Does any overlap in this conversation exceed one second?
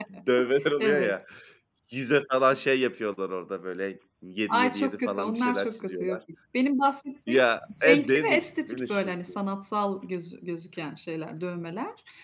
Yes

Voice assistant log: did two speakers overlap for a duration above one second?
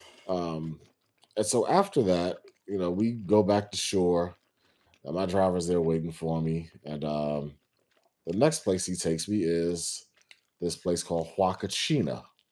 No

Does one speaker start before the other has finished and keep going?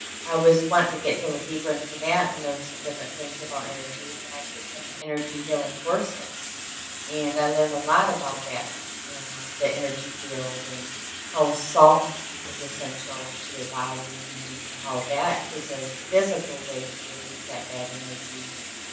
No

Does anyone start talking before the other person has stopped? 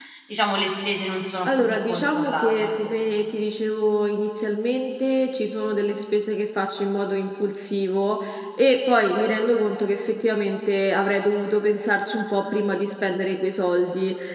Yes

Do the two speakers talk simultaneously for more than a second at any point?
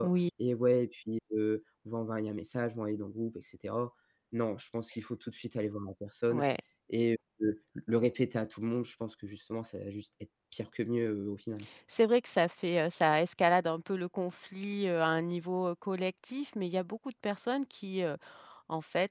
No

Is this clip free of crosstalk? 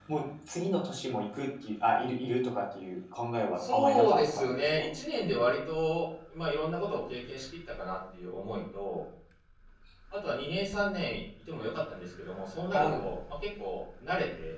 No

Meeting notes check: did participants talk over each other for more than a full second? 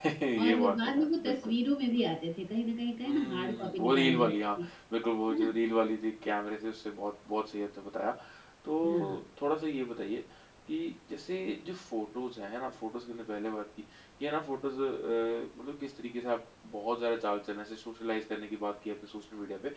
Yes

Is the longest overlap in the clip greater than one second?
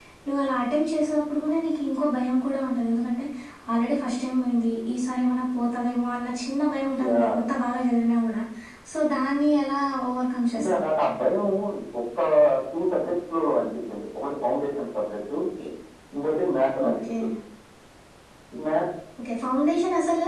No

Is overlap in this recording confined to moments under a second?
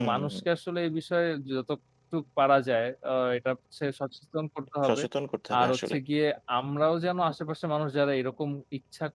Yes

